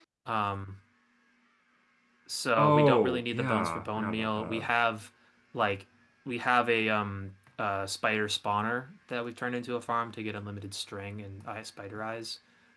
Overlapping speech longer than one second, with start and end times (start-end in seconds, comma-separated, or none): 2.6-4.7